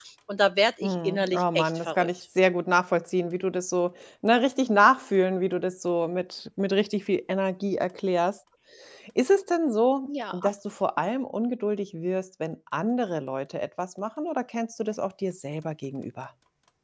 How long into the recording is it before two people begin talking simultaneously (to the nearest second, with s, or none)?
1 s